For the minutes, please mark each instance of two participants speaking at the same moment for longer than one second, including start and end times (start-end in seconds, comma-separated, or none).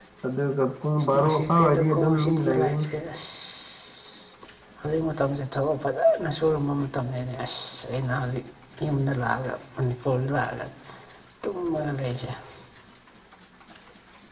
1.1-2.9